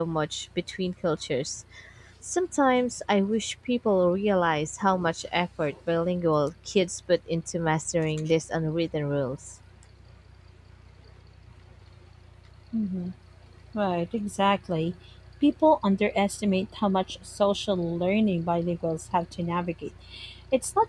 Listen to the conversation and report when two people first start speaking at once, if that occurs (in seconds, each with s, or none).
none